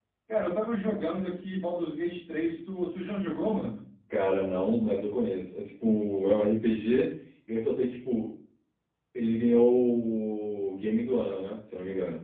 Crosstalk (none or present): none